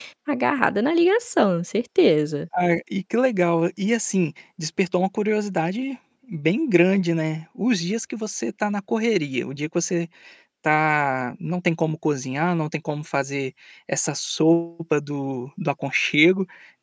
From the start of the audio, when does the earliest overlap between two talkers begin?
none

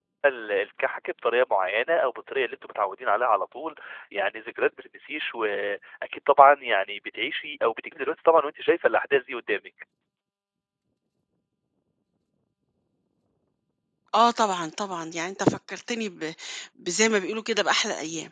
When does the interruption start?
none

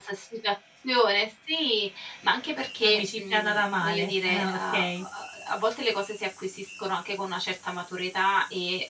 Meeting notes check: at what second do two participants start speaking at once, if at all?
2.8 s

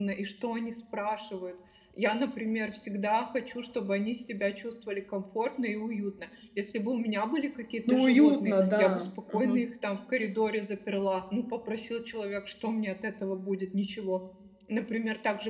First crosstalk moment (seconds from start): 7.9 s

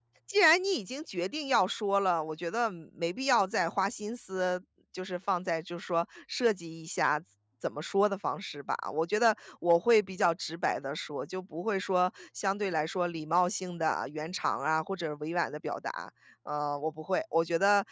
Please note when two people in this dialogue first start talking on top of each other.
none

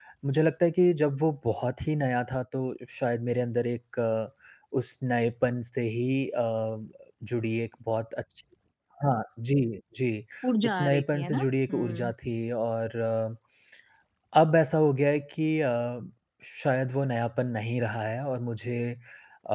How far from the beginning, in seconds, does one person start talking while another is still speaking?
10.6 s

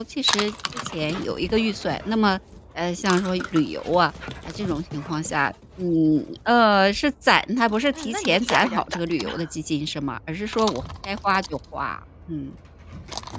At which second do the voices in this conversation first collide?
8.0 s

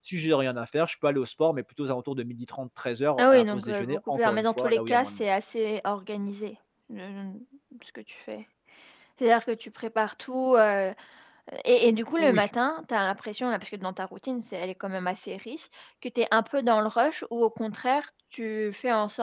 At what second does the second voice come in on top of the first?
3.2 s

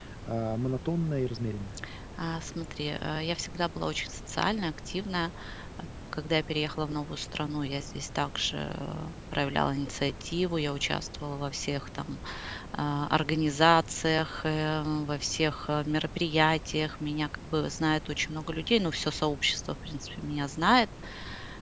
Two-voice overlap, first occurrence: none

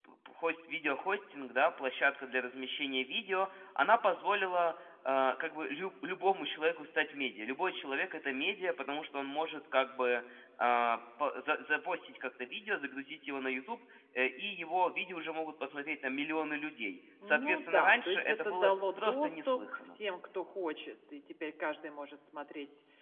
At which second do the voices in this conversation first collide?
17.2 s

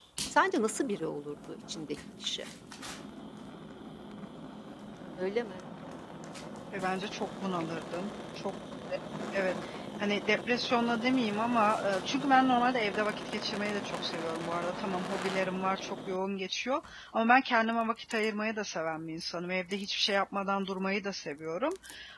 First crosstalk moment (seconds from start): none

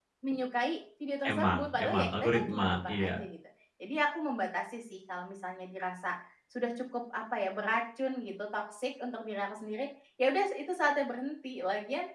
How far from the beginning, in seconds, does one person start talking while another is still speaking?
1.2 s

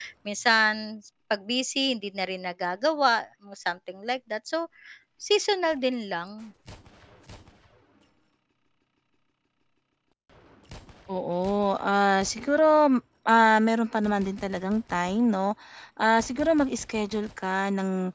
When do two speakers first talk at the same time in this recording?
none

